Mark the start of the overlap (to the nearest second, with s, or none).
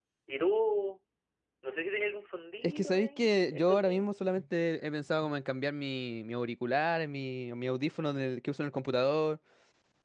3 s